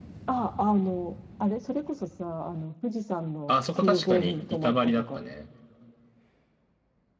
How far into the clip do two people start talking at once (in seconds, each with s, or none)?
3.5 s